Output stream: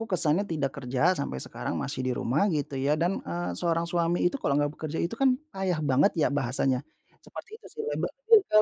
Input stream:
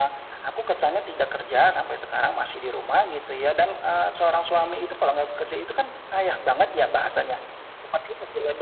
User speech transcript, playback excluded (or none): none